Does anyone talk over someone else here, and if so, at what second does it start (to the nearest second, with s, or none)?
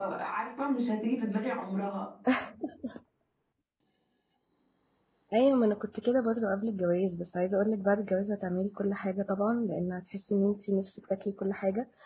none